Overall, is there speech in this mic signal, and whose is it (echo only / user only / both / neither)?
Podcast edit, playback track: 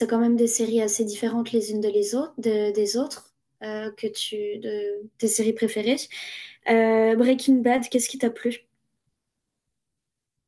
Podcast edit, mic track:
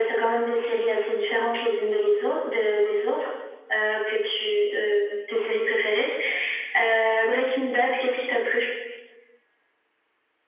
echo only